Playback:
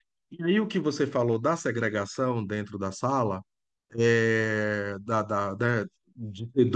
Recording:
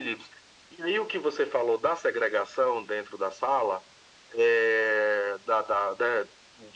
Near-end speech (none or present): none